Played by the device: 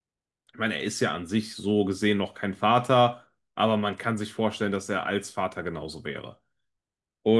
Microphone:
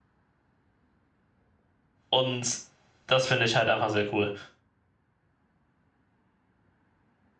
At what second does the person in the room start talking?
2 s

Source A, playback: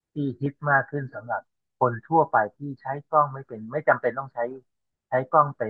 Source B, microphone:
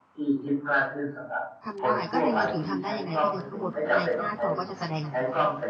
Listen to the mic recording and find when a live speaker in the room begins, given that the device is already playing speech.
2 s

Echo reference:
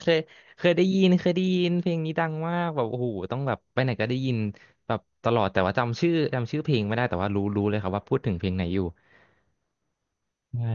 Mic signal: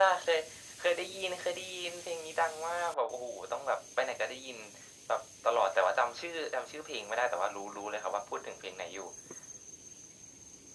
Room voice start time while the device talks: none

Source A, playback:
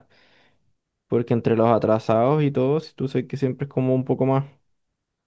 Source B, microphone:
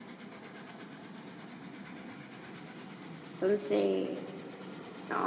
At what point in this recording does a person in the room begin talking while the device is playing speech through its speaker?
3 s

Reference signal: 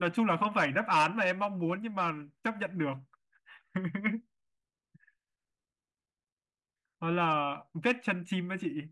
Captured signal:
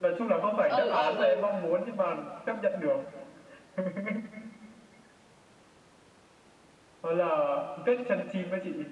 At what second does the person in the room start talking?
1 s

